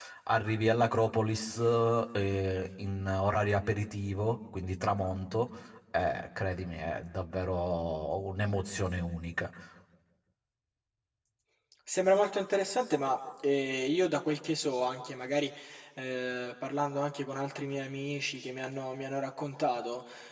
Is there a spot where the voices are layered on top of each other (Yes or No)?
No